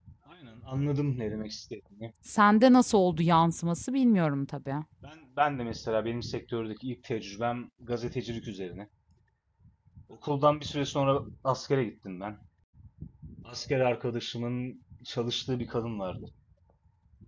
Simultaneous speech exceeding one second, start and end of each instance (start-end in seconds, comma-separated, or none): none